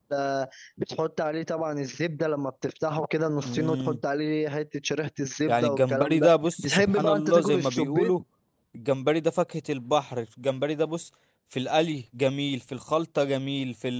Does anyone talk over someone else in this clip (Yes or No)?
Yes